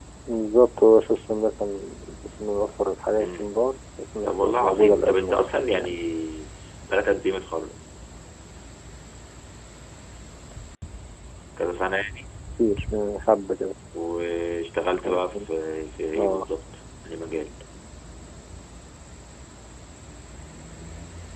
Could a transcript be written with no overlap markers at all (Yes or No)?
No